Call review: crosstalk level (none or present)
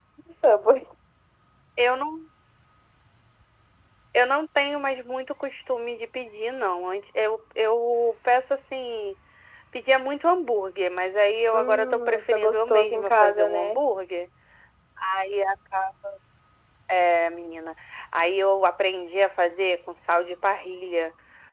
present